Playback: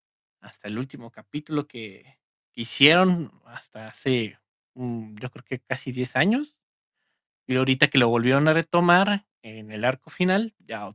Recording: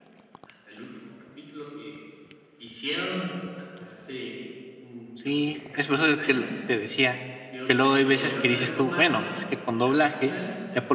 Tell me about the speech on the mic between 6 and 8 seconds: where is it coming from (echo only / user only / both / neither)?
both